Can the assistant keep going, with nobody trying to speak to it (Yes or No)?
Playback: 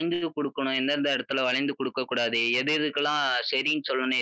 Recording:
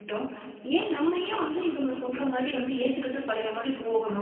No